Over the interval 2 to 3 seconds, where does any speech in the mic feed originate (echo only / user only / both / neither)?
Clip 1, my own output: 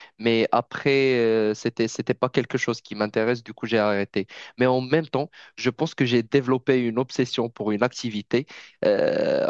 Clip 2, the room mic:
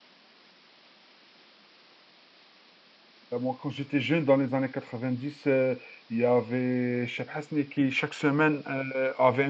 neither